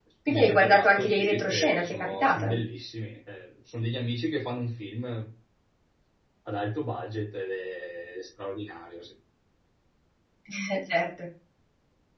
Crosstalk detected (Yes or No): Yes